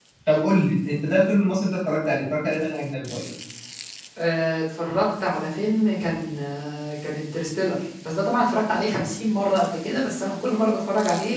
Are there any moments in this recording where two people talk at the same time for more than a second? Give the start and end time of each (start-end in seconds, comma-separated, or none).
none